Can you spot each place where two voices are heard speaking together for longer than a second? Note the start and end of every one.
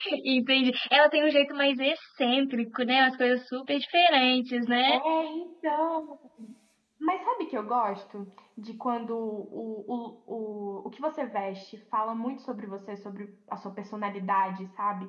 none

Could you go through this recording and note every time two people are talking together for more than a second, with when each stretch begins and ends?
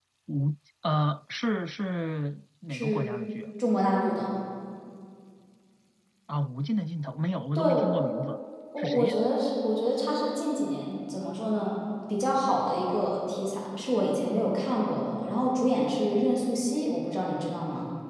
none

